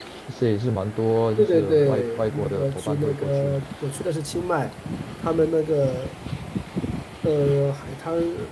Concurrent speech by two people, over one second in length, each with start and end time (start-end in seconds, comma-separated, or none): 1.4-3.6